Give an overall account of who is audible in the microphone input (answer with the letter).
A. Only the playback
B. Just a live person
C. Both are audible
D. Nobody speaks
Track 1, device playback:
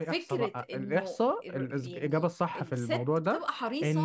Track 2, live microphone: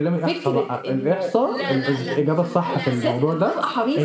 C